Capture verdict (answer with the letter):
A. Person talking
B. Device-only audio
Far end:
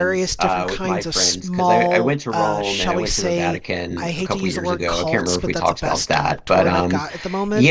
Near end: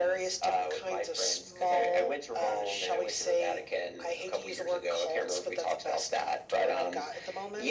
B